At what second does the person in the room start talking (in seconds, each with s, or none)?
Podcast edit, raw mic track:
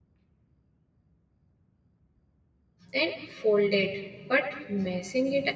2.9 s